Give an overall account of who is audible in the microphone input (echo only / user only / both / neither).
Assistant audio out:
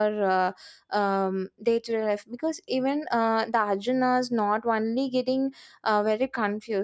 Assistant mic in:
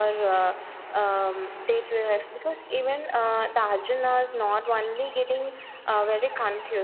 echo only